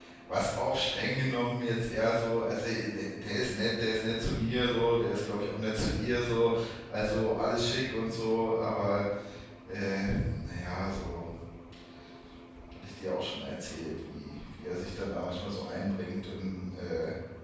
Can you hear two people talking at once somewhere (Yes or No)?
No